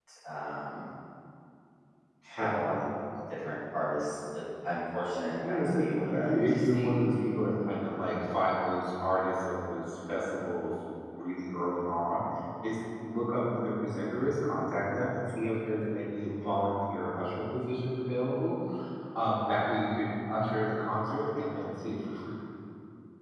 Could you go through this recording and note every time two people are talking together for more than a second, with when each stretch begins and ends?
5.4-7.0

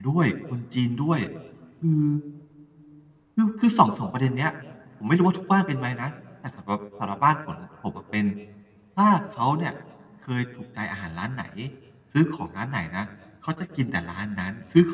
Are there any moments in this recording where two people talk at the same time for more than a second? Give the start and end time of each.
none

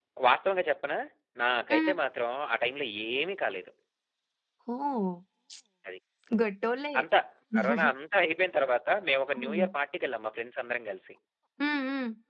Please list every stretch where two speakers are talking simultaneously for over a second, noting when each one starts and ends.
none

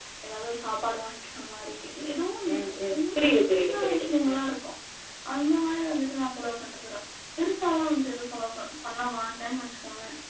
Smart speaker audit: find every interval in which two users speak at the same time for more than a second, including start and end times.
2.9-4.4

